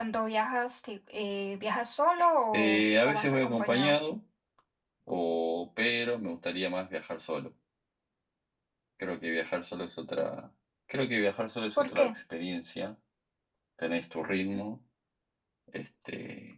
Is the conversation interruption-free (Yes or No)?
No